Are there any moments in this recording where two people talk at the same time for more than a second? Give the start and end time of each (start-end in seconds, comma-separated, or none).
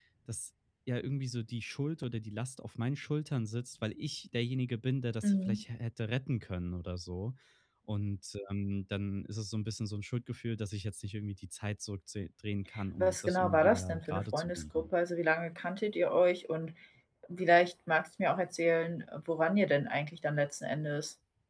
13.0-14.9